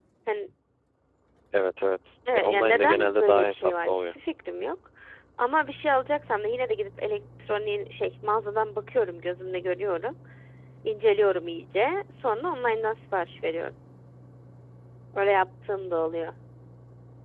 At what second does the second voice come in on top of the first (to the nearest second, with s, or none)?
2 s